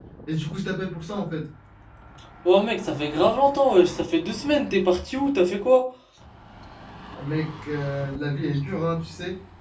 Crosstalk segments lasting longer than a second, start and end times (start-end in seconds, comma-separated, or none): none